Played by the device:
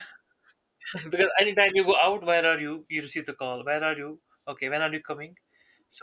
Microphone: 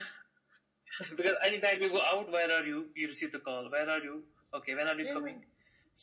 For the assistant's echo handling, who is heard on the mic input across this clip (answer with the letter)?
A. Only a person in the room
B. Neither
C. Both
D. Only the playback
C